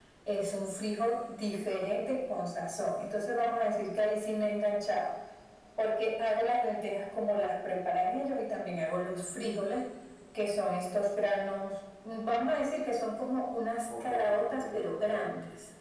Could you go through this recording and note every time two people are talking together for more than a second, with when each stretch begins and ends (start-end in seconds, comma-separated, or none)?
14.0-15.3